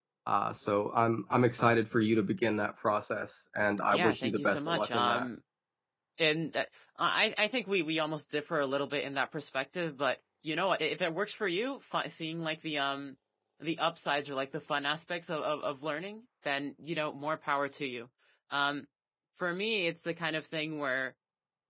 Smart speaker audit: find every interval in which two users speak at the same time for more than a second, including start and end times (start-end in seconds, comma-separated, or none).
3.9-5.3